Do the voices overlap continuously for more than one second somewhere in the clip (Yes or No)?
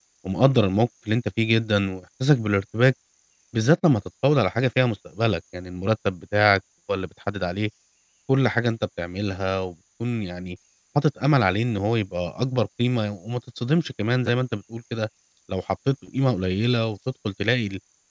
No